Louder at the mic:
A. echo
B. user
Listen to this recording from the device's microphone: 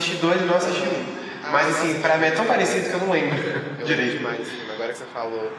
A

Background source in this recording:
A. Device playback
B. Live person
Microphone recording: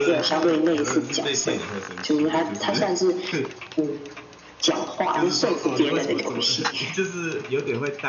B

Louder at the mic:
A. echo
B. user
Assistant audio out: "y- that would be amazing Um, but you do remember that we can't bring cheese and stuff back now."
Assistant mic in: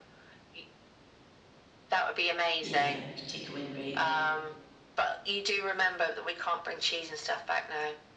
A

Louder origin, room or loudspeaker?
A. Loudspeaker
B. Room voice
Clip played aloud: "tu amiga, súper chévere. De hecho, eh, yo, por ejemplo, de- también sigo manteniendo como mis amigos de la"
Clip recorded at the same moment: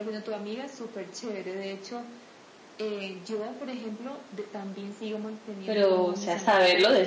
B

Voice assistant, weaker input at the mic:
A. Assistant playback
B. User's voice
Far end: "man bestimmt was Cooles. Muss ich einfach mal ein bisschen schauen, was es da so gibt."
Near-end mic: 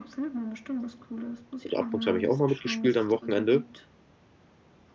A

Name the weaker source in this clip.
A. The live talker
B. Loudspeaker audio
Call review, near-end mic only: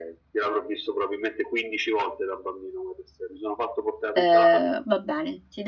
B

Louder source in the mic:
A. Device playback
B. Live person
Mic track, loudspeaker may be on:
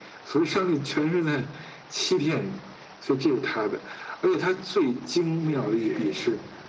A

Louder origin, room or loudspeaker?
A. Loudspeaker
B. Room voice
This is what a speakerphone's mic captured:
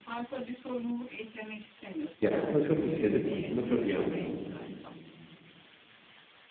B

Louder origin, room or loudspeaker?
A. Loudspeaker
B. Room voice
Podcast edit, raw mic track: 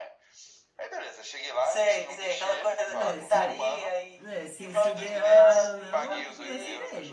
A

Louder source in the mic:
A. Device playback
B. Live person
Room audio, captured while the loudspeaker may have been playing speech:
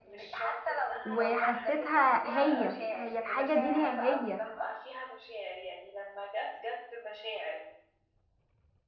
B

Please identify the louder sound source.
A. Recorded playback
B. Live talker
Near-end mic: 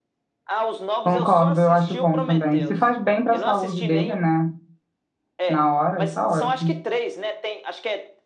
B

